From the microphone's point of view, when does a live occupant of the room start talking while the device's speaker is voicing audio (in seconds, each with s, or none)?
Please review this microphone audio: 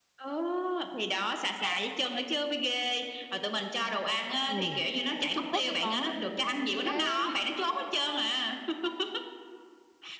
4.4 s